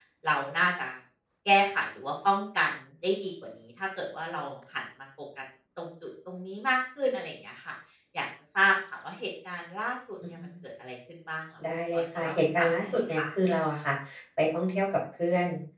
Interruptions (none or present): present